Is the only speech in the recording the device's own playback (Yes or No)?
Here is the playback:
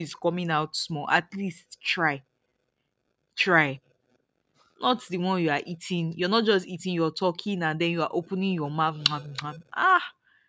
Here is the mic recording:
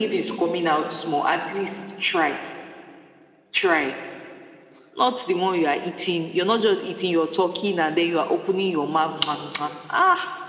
Yes